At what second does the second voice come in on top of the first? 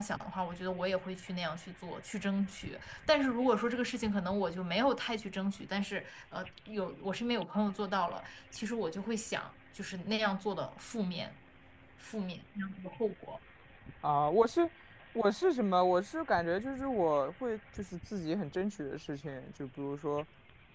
none

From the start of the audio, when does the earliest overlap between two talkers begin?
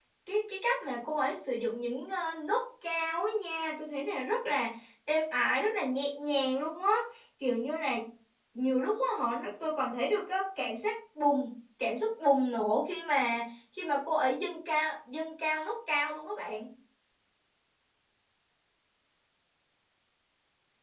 none

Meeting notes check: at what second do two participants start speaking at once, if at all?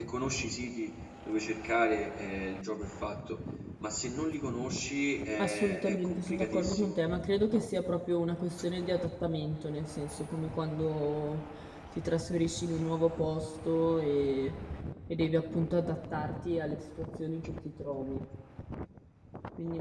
5.4 s

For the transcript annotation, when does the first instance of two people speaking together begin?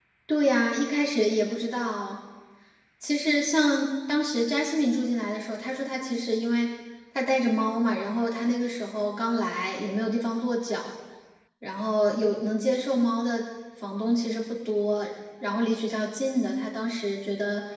none

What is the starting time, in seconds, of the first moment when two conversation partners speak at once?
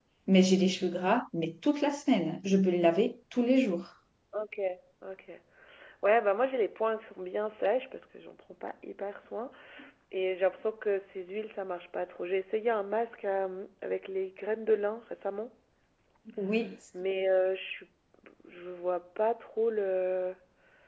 none

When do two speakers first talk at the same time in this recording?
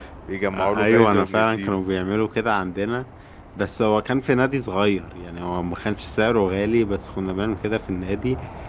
0.5 s

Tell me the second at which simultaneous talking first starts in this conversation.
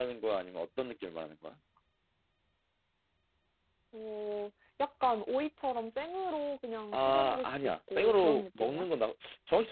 6.9 s

